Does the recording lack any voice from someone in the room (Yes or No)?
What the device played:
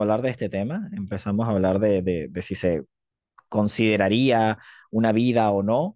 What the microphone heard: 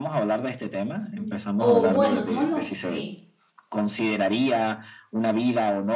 No